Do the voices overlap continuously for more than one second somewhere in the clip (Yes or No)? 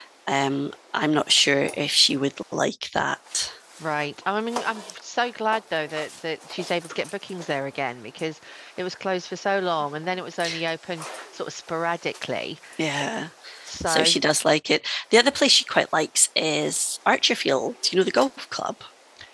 No